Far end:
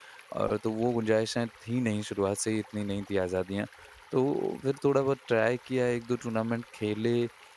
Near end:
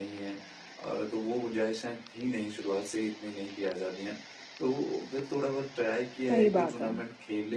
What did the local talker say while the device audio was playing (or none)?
सही बात है।